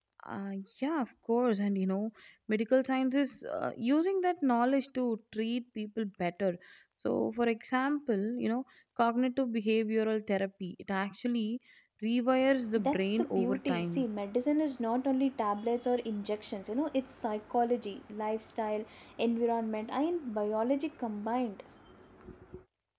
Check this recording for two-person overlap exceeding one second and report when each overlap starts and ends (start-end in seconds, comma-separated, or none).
12.8-14.1